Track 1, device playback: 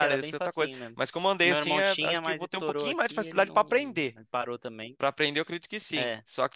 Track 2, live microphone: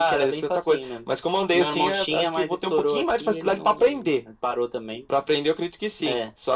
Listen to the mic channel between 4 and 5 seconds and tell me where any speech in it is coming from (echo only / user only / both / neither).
echo only